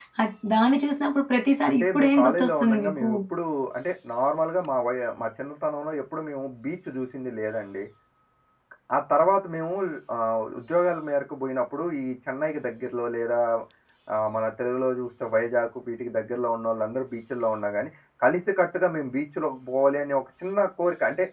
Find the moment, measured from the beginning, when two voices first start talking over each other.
2 s

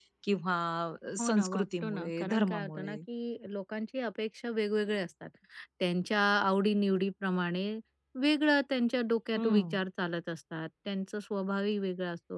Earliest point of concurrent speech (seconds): 1 s

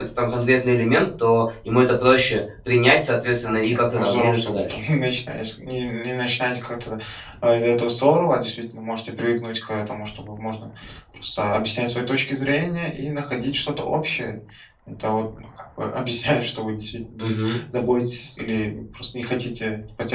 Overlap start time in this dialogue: 3 s

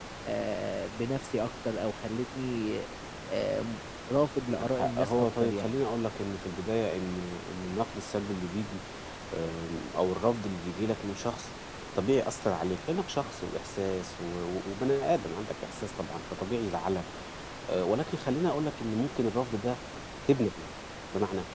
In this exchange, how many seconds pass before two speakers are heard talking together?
5 s

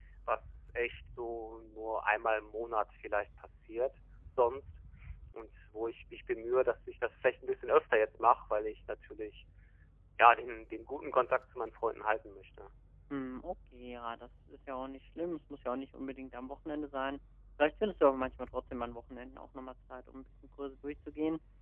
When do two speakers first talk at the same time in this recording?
none

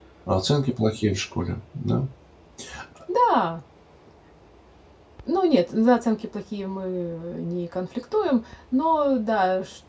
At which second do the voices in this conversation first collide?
none

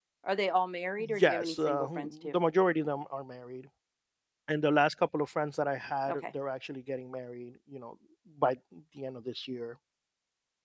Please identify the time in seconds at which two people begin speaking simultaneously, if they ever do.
1 s

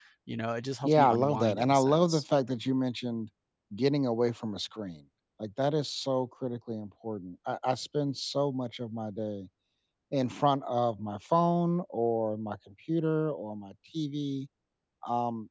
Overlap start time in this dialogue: 1 s

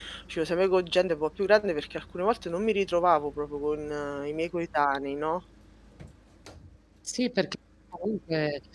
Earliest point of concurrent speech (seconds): none

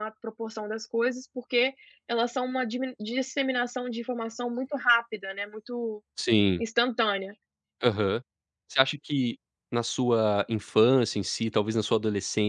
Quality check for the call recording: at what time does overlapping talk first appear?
none

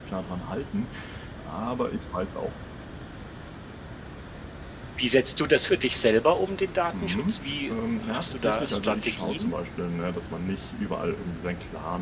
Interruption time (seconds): 7 s

